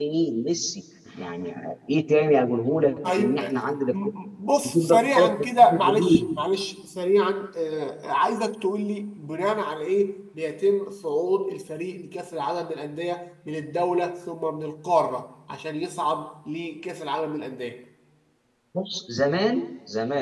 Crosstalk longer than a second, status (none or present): present